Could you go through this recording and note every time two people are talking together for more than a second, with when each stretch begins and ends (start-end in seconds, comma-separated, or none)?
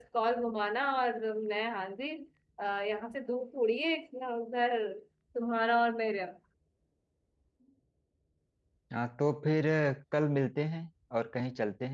none